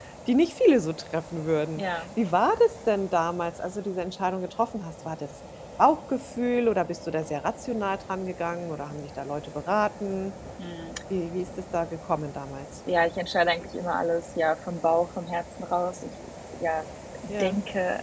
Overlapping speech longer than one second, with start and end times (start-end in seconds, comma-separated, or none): none